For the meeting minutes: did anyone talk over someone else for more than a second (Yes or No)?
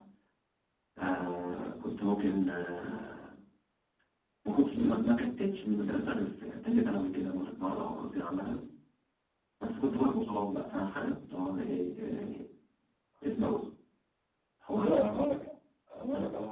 No